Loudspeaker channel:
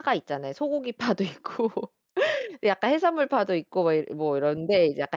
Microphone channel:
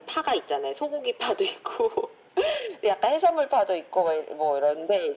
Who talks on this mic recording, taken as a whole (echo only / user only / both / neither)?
echo only